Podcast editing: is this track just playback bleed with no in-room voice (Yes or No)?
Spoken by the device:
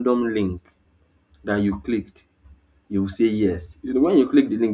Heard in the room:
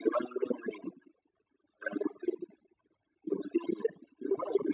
Yes